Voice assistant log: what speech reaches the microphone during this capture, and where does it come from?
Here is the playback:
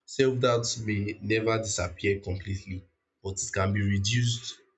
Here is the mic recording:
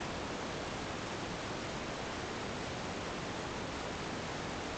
neither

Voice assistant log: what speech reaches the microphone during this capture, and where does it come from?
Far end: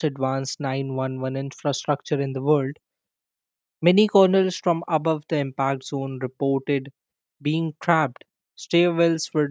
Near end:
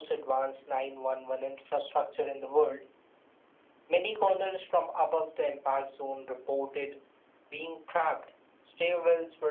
echo only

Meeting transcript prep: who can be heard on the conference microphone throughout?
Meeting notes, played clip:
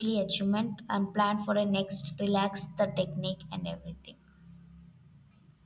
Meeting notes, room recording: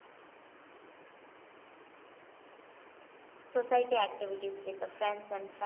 user only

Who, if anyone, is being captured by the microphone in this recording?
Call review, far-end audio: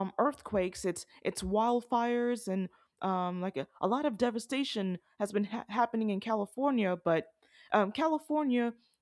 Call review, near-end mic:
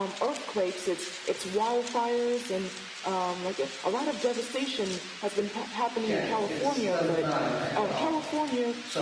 both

